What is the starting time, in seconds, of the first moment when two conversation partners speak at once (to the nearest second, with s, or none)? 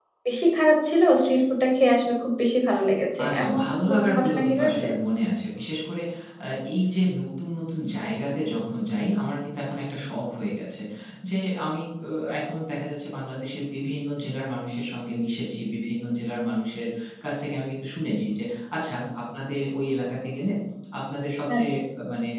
3 s